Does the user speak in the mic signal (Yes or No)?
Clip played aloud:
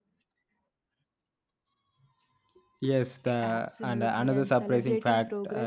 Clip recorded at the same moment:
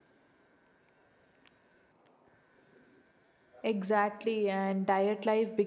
Yes